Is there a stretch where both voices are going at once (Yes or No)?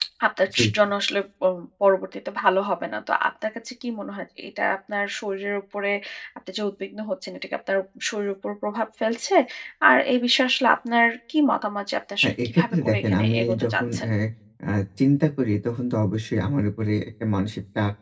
Yes